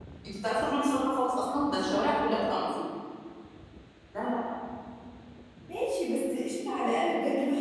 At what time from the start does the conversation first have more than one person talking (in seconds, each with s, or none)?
none